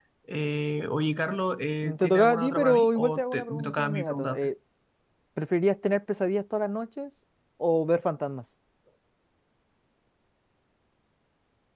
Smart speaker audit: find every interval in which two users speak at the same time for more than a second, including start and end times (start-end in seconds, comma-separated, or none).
2.0-4.5